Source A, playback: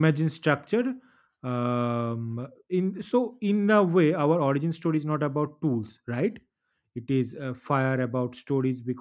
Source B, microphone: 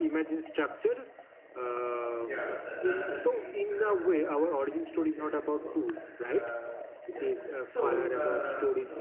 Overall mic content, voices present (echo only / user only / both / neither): both